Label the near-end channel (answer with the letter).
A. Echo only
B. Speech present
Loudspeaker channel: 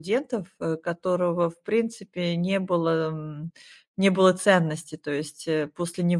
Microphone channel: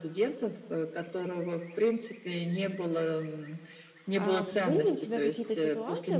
B